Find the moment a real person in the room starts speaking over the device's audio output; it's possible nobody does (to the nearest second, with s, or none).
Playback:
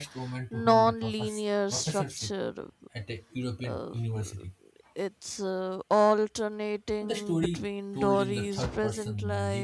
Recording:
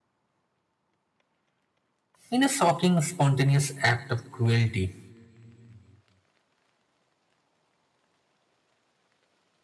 2 s